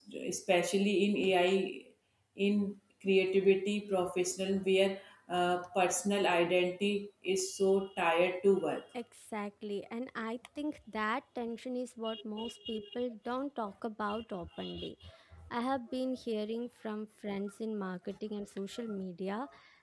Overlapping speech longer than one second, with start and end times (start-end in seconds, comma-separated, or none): none